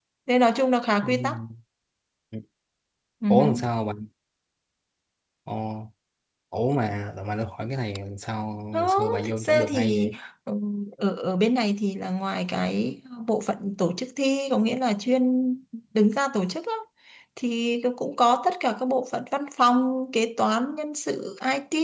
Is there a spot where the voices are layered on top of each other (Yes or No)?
Yes